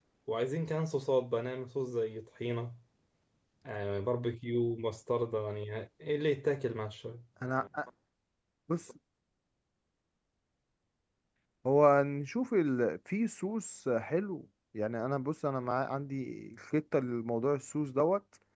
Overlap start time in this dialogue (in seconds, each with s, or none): none